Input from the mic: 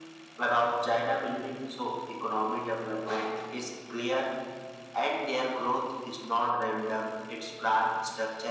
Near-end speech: none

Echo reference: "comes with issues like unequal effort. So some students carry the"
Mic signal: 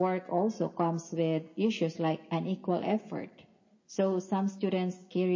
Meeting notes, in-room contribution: none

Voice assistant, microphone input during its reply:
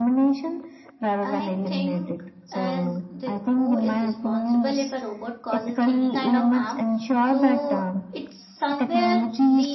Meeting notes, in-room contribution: present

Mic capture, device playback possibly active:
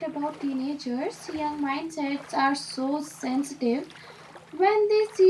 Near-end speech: present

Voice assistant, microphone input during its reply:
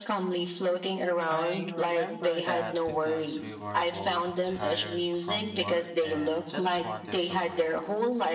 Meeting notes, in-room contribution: present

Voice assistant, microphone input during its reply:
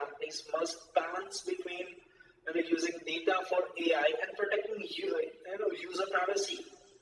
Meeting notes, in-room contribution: none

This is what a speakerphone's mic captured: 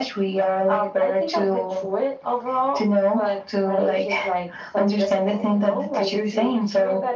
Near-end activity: none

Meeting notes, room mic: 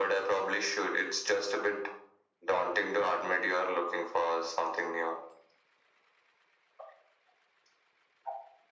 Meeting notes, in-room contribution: none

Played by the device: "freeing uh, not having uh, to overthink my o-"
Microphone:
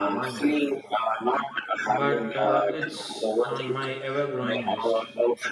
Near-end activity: present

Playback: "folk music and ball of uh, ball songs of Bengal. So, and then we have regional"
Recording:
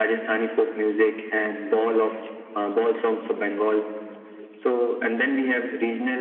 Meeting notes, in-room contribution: none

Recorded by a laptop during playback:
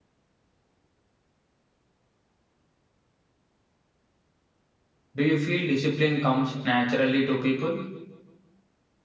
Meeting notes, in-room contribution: present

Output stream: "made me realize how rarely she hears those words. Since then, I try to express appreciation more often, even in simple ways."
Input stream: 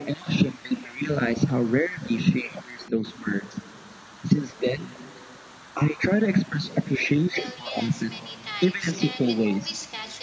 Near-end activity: present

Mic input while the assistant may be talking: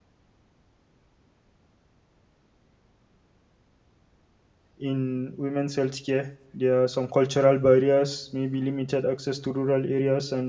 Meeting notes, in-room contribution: present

